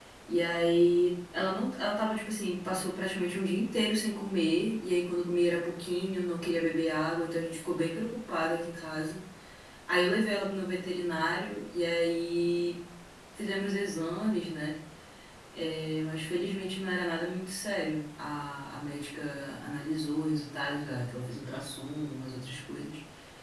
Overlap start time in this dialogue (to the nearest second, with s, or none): none